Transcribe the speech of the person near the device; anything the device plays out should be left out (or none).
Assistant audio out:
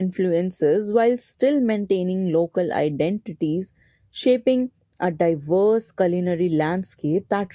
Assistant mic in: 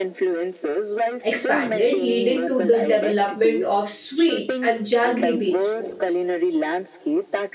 expanded, leading to the development of sweets and jaggery based foods.